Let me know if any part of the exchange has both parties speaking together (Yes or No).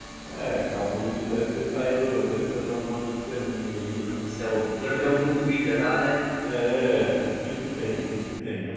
No